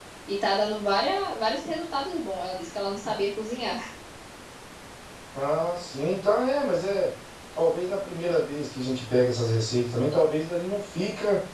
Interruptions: none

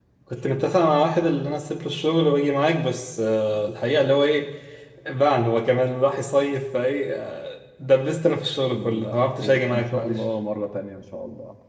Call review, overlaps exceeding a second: present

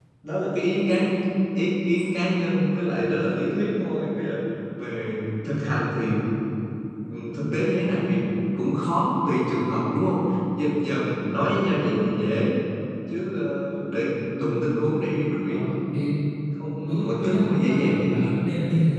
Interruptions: present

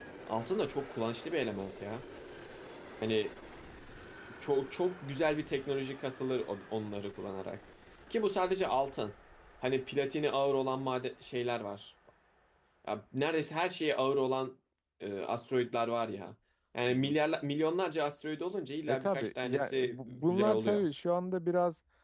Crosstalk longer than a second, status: present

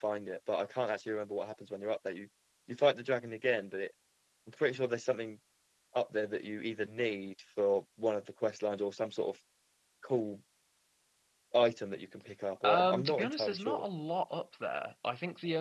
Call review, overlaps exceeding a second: present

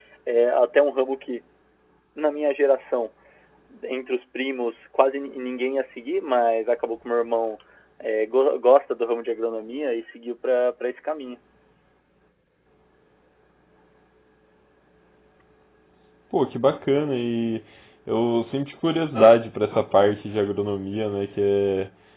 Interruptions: none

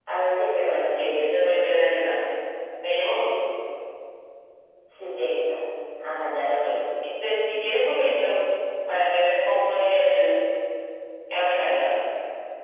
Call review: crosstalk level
none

